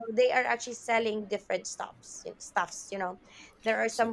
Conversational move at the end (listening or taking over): taking over